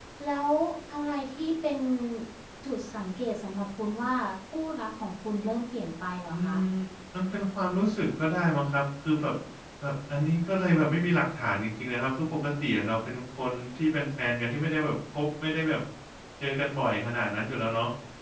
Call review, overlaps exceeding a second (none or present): none